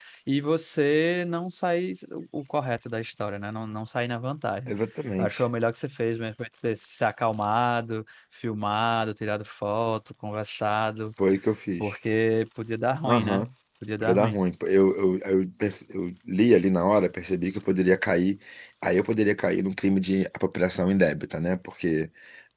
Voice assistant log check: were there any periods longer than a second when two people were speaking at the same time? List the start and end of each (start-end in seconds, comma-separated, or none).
none